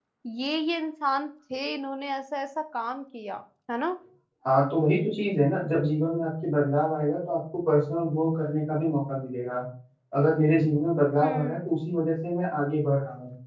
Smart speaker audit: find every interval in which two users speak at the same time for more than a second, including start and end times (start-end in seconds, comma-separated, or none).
none